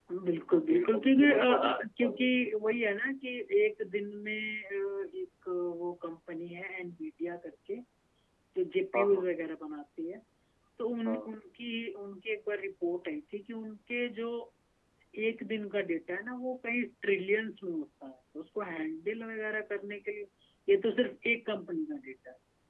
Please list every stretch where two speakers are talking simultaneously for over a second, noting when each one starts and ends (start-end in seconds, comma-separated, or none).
0.5-2.2